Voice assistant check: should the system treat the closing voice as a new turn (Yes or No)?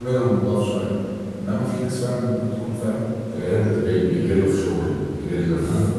No